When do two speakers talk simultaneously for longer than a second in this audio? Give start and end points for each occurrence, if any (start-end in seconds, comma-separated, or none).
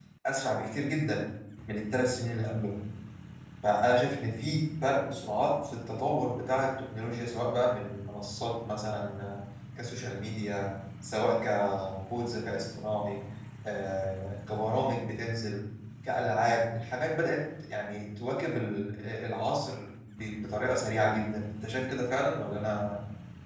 none